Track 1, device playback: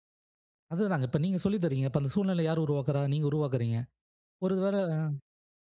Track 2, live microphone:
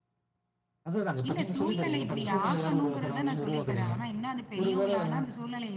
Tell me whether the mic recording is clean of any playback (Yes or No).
No